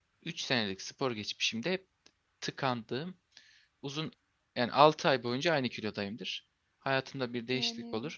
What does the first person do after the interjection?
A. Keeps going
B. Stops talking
A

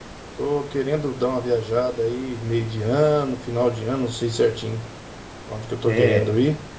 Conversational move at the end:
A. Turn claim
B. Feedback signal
B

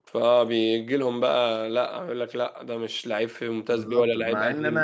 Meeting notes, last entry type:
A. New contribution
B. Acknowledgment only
A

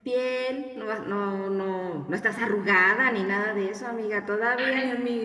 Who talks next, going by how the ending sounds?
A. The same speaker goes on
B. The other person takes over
B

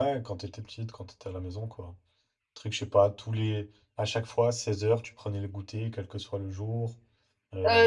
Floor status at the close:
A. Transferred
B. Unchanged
A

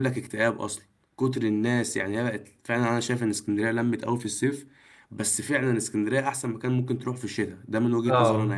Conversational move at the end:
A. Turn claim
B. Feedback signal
A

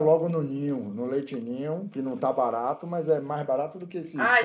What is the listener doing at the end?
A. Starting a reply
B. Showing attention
A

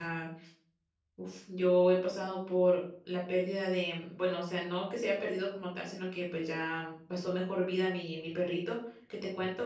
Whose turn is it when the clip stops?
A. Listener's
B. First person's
B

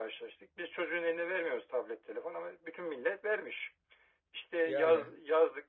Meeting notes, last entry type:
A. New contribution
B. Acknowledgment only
B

